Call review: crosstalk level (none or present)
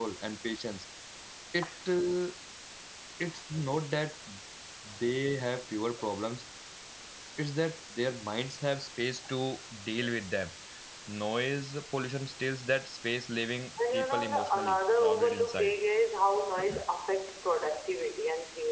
present